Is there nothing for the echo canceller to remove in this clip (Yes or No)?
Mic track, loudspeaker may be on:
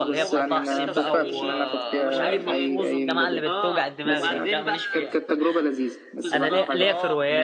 No